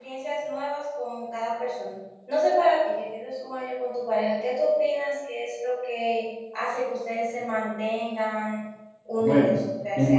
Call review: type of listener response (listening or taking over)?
taking over